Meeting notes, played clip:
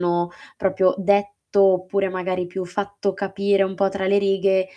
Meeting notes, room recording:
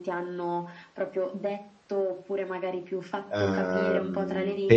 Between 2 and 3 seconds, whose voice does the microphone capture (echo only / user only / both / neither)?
echo only